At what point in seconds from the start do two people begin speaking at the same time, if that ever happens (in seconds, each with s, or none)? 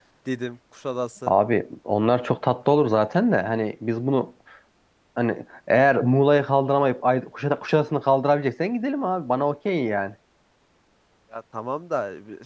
none